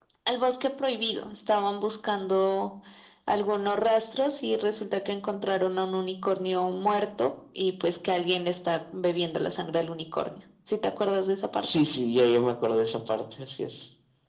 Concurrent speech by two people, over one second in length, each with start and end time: none

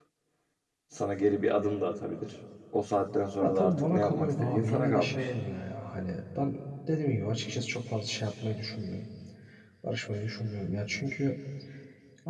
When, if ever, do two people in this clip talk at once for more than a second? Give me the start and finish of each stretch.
3.4-5.3

